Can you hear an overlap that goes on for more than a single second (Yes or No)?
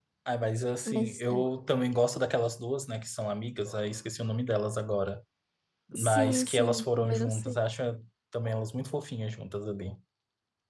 Yes